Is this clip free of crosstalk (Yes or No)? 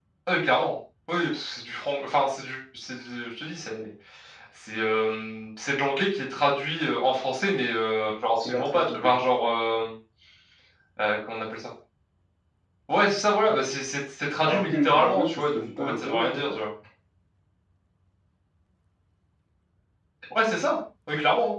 No